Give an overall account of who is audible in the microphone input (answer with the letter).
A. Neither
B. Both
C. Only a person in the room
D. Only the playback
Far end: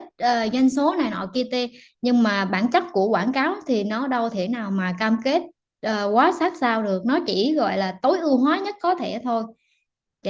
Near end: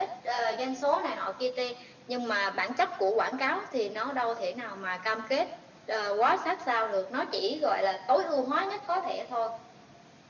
D